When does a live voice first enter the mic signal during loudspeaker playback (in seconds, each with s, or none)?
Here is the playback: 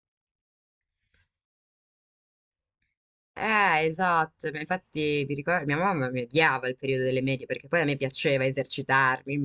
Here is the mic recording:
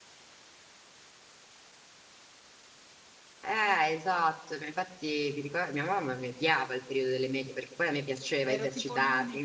8.4 s